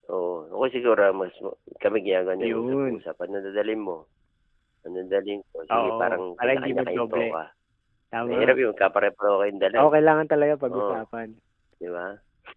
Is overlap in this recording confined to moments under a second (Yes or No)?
No